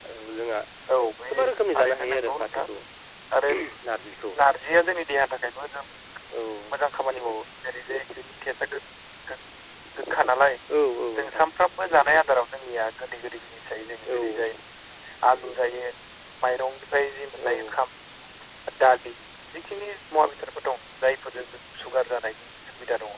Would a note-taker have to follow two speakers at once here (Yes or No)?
Yes